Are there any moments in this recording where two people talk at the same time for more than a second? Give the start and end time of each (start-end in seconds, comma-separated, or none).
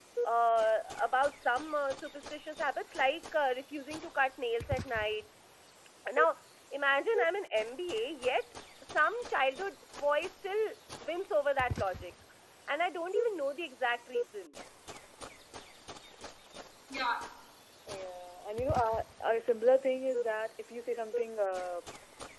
none